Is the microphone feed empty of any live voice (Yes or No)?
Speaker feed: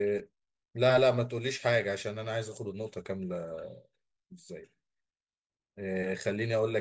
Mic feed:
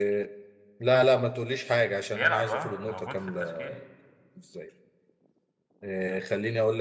No